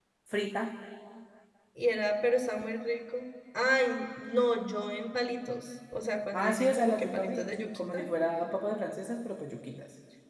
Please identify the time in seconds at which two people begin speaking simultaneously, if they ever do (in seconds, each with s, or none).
6.3 s